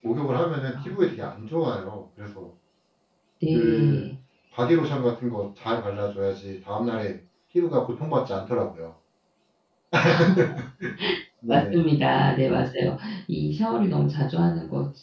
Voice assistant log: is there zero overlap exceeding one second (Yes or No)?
Yes